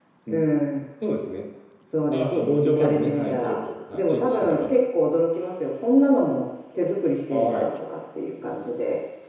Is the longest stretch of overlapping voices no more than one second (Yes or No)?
No